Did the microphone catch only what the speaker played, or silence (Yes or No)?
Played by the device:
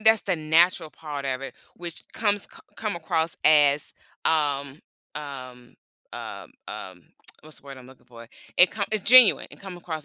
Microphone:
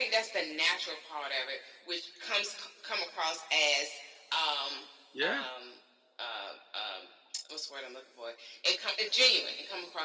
No